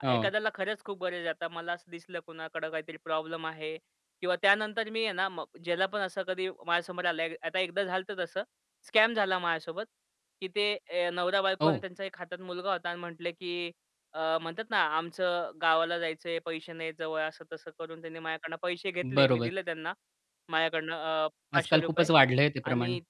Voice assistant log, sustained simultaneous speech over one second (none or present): none